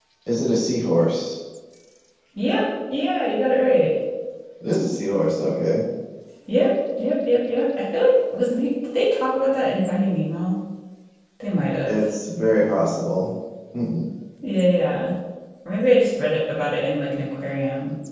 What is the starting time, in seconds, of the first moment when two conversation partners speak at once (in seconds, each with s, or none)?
none